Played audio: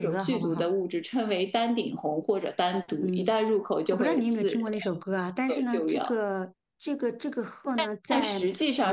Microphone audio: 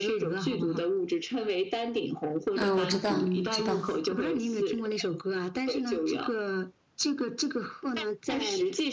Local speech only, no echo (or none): 嗯，我知道，知道。